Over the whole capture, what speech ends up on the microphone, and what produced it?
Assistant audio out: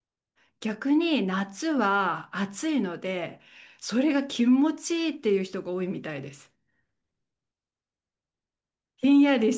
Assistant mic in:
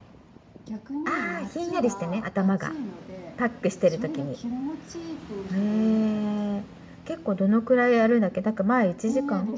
both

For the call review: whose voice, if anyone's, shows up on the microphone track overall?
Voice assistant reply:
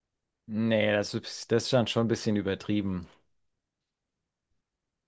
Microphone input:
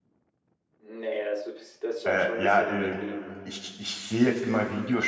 both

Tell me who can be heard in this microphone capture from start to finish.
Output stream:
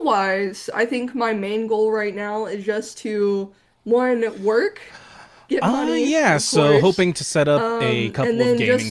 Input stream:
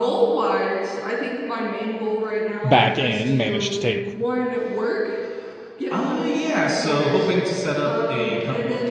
both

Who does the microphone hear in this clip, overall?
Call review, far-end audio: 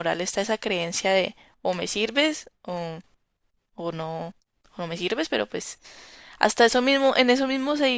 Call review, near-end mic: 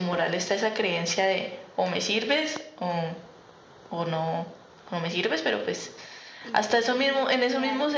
both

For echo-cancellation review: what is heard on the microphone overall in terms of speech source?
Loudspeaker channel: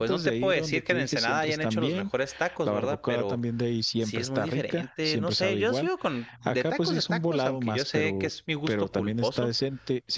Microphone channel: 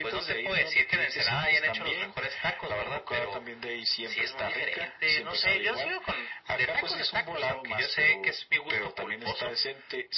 echo only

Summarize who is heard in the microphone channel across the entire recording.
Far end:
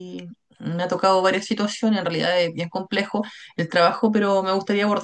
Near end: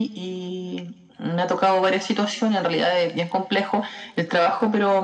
echo only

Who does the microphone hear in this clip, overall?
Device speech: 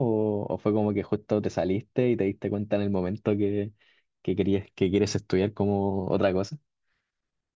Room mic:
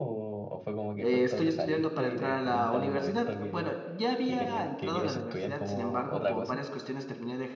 both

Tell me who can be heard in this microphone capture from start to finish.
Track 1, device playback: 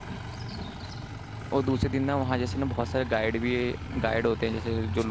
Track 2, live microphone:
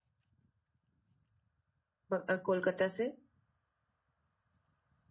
user only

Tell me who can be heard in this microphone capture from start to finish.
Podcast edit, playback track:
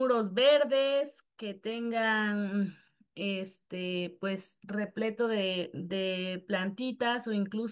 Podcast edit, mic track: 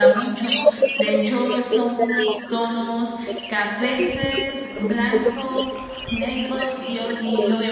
both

